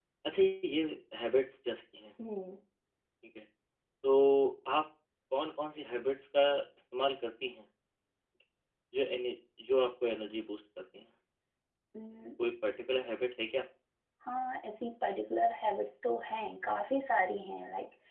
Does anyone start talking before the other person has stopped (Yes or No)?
No